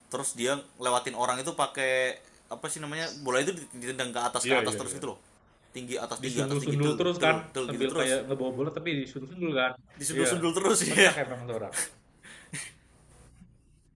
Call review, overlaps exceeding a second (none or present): present